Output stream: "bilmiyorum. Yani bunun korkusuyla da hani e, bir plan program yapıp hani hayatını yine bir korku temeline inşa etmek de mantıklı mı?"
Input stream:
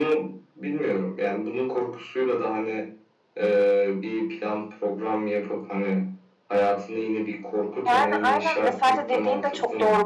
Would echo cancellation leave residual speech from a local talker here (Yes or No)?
Yes